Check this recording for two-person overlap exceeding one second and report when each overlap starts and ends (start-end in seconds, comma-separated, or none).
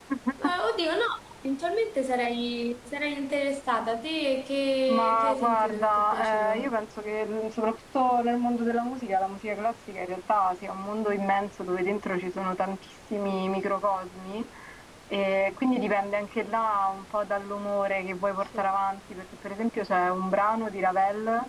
4.9-6.7